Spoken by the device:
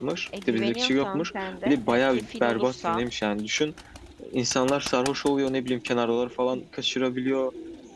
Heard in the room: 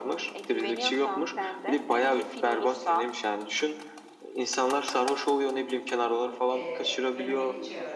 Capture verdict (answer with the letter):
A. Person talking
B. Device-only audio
A